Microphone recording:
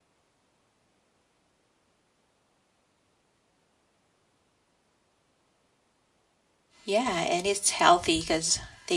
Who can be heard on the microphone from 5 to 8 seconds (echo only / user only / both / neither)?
user only